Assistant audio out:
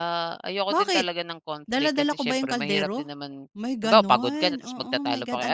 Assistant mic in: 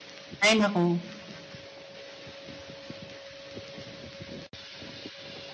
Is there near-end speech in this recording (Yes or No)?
Yes